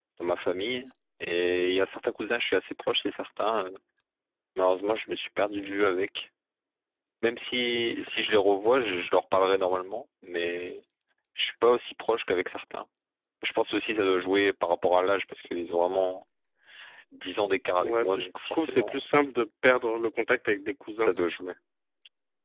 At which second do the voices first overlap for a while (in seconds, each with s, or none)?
17.8 s